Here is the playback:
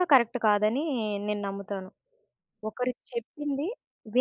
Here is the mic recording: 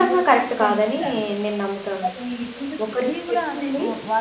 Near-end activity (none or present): present